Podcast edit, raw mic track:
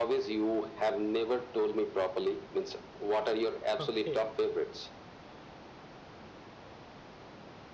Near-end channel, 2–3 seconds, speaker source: echo only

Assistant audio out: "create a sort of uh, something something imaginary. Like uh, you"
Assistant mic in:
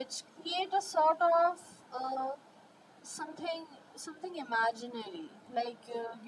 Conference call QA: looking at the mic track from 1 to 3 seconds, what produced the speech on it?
echo only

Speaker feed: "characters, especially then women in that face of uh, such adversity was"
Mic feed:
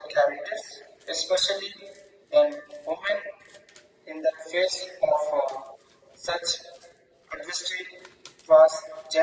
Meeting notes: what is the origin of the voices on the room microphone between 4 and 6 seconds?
echo only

